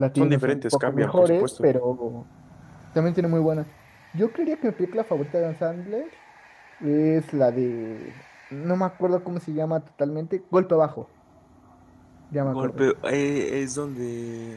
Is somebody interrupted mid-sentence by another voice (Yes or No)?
Yes